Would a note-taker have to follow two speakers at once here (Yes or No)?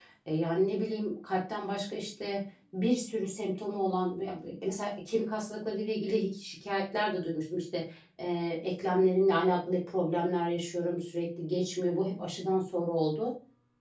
No